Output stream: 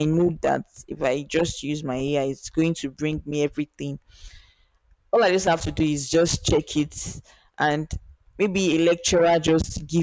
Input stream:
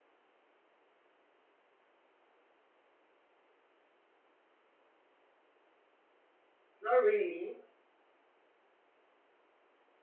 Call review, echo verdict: none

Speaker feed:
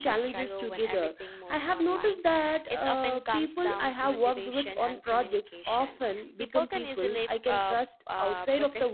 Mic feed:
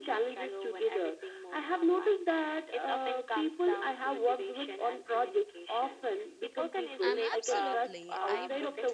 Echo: present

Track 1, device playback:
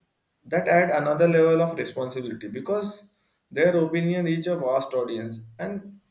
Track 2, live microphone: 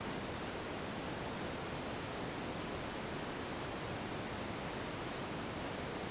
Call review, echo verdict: none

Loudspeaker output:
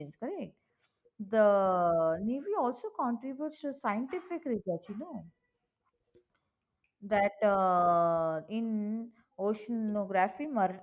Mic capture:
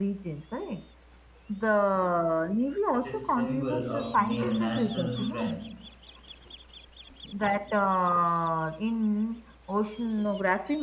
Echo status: present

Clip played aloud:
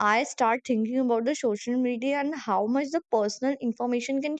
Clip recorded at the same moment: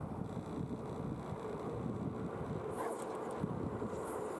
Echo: none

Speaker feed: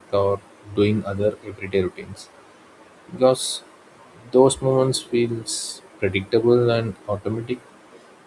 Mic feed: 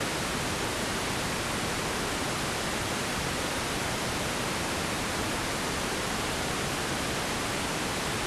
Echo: none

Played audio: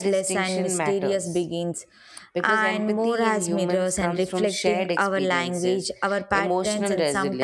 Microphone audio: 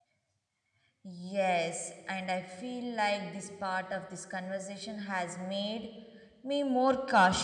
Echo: none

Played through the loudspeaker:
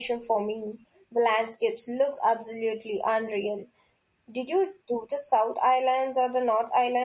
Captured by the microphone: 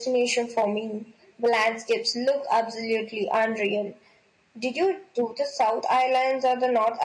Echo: present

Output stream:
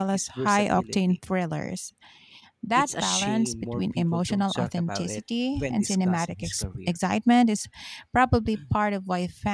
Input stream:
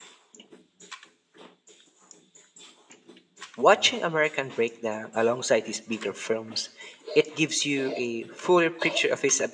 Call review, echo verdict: none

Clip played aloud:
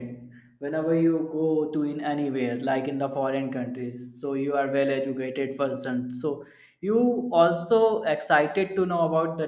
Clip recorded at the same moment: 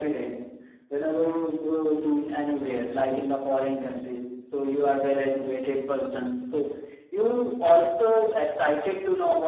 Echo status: present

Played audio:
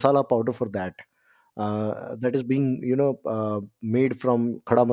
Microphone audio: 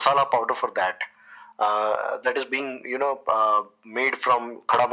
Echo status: present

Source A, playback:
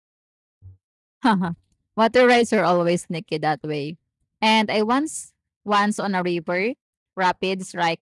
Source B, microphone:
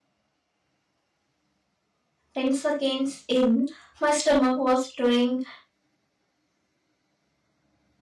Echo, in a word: none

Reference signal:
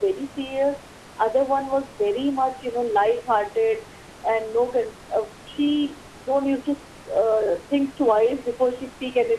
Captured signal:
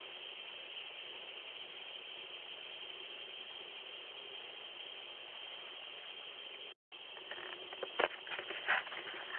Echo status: none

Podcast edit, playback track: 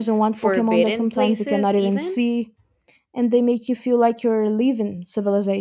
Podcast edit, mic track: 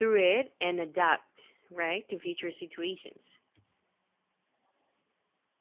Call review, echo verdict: none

